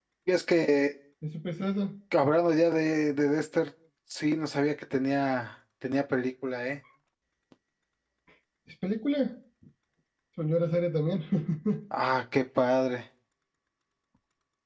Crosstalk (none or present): none